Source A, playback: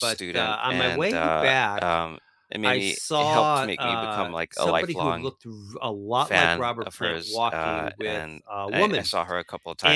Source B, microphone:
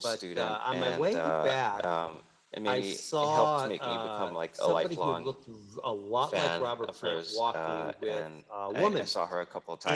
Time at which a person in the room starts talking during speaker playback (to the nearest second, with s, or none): none